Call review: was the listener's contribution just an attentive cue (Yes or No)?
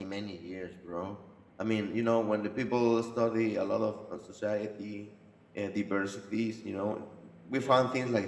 Yes